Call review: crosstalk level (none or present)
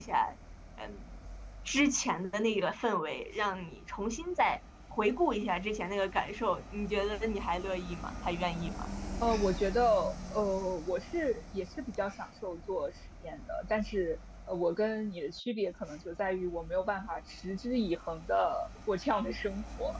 none